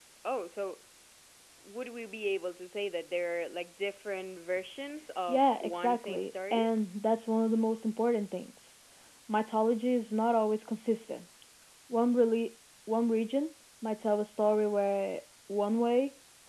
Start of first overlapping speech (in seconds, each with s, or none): 5.3 s